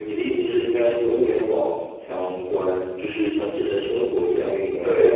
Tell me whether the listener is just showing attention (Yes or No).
No